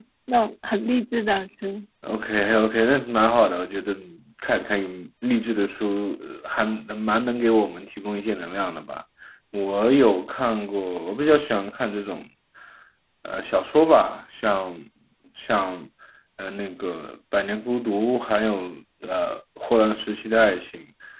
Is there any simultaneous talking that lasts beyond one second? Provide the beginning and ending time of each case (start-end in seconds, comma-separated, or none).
none